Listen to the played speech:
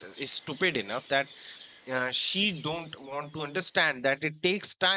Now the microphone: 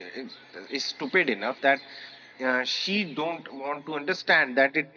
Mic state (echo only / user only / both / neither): echo only